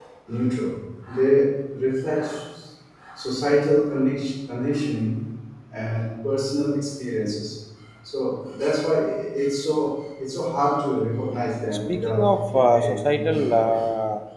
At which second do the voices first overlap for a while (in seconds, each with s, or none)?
11.9 s